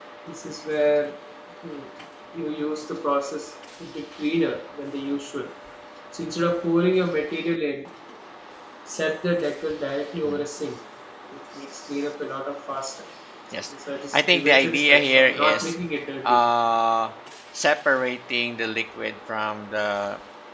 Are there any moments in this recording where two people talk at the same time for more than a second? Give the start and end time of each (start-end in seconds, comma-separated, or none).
14.1-15.7